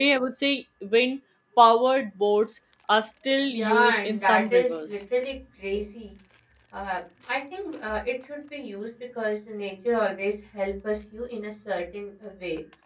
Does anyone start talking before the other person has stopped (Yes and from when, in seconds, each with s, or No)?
Yes, from 3.5 s